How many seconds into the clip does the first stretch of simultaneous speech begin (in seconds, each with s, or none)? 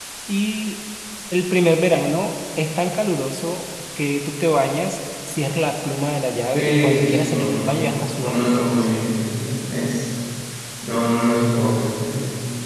6.5 s